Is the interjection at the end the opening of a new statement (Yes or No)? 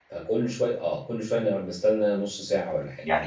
Yes